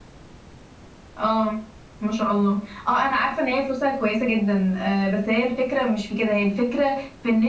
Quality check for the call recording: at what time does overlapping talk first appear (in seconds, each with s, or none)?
none